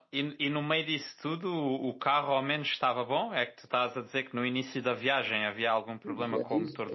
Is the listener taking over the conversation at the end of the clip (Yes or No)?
Yes